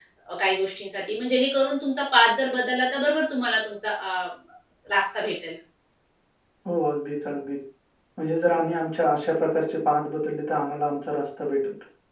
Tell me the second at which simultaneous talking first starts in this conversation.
none

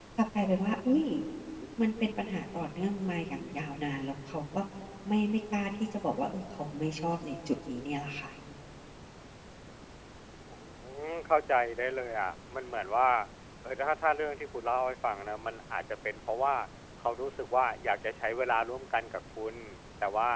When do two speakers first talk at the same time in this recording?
none

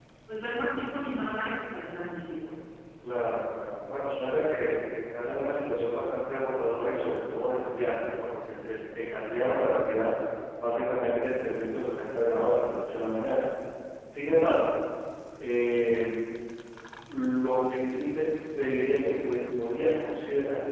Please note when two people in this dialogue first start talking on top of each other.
none

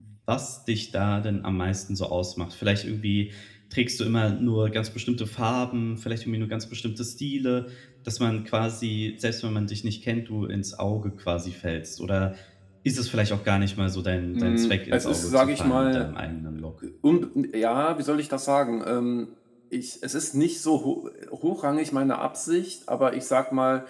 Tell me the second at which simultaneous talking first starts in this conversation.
14.3 s

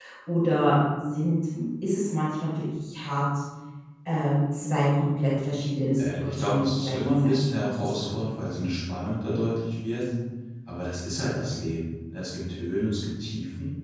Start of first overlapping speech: 6.0 s

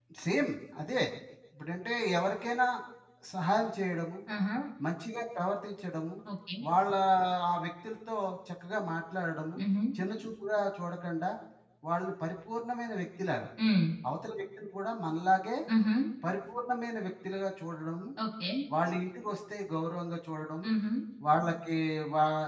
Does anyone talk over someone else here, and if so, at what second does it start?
none

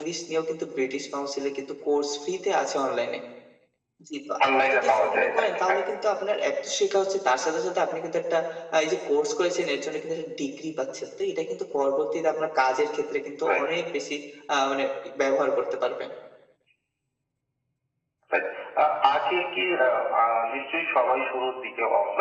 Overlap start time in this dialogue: 4.4 s

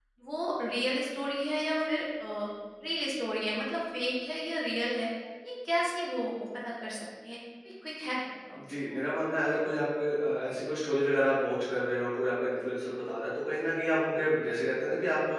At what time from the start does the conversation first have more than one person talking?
none

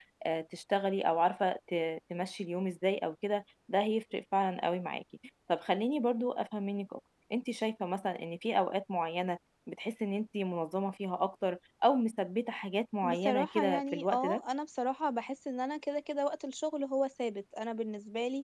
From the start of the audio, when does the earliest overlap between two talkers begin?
13.0 s

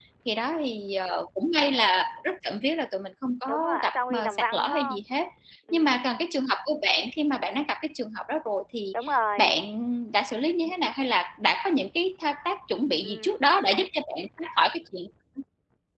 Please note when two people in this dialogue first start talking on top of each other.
3.5 s

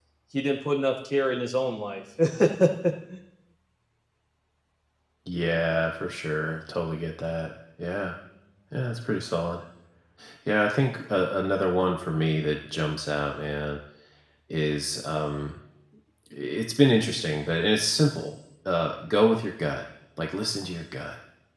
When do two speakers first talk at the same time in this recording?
none

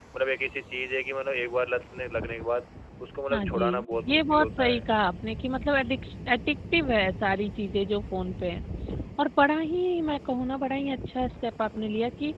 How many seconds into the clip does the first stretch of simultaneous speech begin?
3.3 s

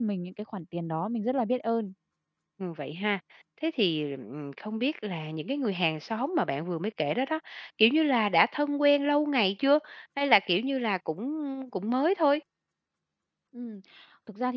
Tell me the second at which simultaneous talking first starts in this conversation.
none

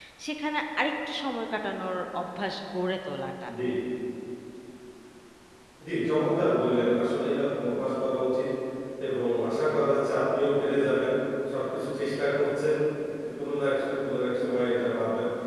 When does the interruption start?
none

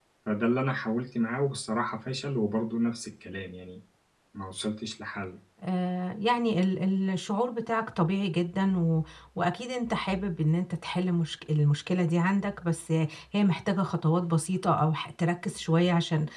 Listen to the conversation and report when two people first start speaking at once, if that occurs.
none

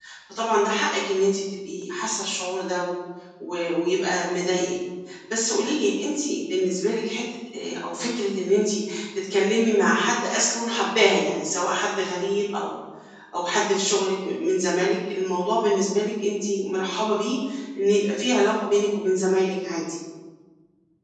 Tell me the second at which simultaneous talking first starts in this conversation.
none

